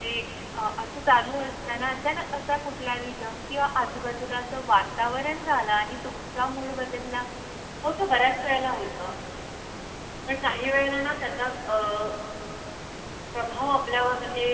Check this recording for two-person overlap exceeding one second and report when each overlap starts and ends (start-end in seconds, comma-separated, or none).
none